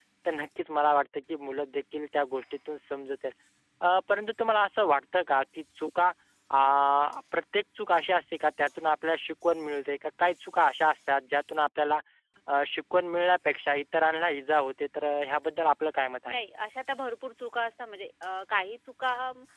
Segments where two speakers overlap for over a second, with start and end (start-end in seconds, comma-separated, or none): none